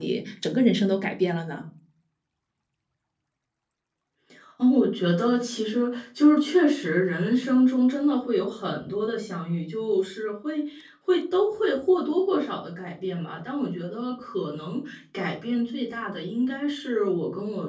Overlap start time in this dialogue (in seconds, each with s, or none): none